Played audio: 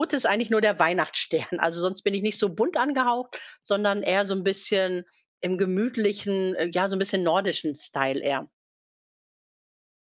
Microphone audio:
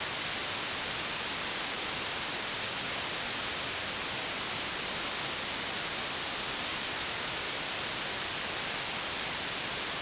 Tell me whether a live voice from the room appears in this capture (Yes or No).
No